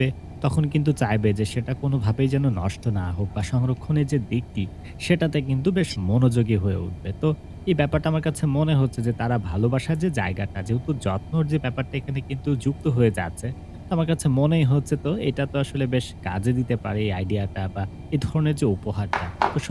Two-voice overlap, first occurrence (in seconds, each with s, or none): none